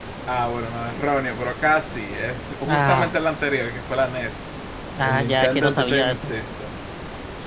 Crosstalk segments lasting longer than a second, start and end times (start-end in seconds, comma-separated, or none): 5.0-6.3